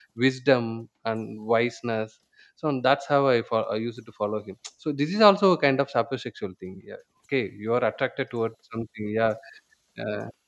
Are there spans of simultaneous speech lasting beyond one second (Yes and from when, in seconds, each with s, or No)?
No